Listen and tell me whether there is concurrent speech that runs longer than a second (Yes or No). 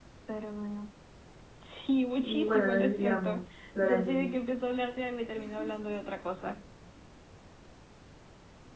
Yes